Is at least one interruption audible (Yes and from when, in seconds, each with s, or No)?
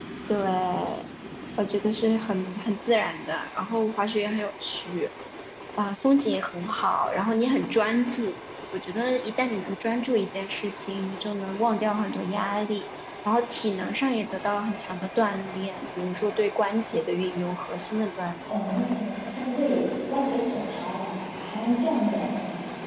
No